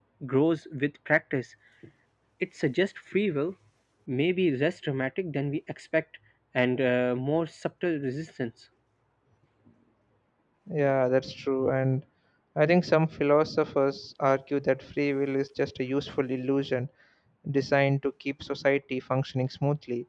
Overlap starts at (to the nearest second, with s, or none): none